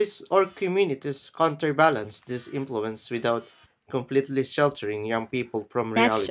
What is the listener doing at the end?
taking over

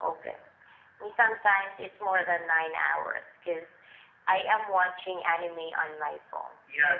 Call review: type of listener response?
taking over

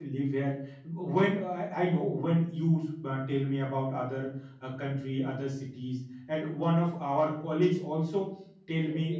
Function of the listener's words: listening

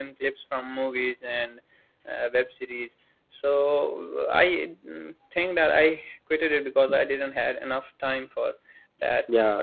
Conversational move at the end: listening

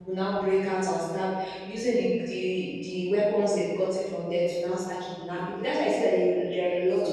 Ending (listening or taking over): listening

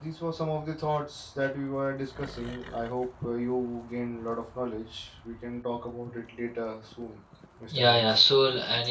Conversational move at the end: taking over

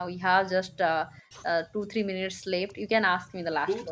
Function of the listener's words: taking over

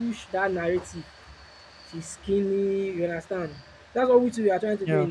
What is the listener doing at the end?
listening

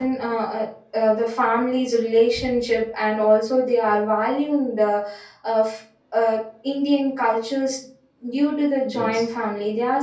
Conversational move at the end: listening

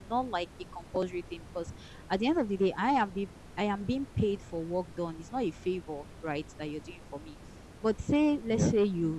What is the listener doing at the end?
listening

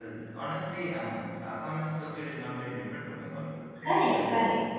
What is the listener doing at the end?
taking over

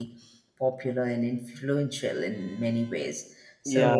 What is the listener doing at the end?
taking over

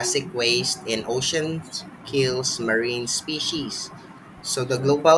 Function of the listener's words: listening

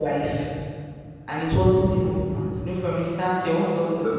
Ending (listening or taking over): taking over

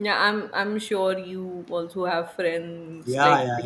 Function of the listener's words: taking over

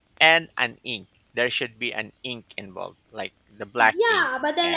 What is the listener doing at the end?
taking over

